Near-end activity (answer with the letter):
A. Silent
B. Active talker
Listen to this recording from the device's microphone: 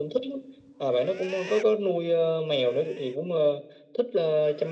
A